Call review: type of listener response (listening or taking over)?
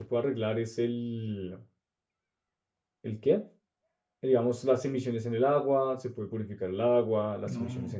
listening